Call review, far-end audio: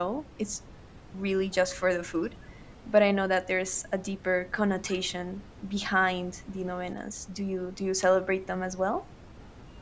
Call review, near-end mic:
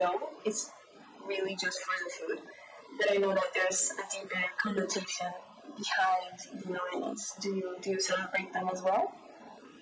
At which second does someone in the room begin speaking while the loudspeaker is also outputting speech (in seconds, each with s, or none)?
none